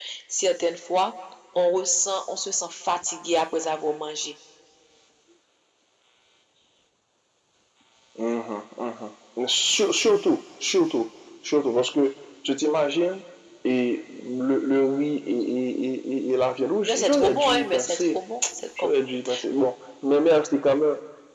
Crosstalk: present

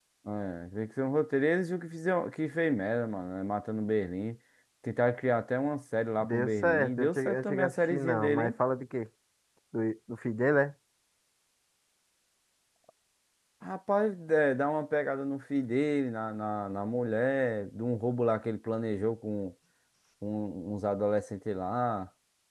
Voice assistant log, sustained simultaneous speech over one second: present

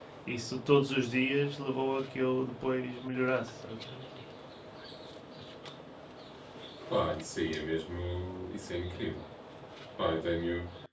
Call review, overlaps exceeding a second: none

